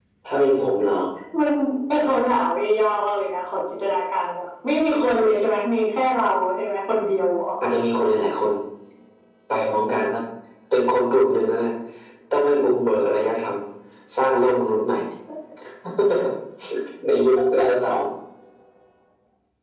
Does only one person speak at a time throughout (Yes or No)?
Yes